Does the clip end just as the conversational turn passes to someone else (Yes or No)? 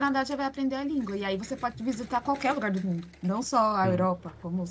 No